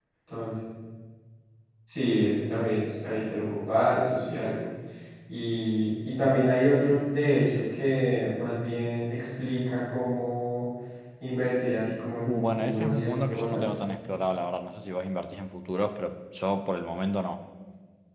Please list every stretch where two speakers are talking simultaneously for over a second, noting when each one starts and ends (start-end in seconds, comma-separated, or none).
12.3-13.6